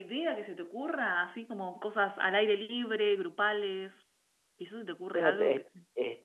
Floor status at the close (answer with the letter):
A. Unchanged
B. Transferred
B